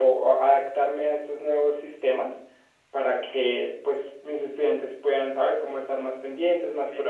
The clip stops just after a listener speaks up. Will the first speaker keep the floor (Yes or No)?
Yes